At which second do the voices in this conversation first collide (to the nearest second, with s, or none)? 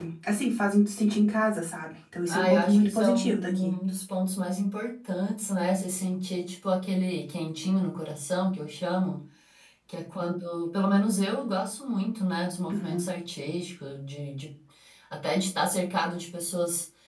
2 s